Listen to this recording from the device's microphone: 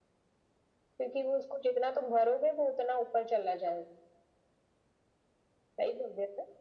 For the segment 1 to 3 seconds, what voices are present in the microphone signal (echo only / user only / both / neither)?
echo only